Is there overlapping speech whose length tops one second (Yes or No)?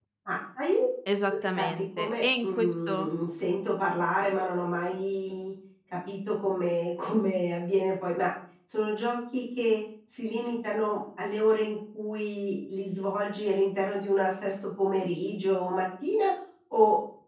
Yes